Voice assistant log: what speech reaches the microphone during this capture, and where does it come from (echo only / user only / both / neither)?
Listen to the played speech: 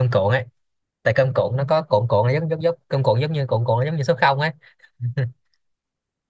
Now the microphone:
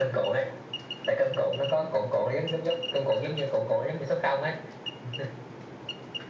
echo only